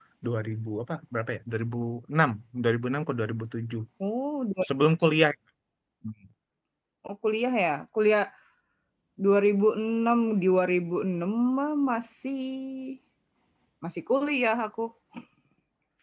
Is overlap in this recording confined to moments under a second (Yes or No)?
Yes